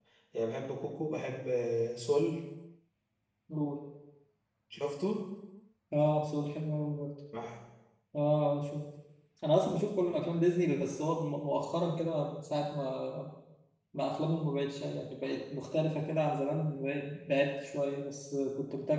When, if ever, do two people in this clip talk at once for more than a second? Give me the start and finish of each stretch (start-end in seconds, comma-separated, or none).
none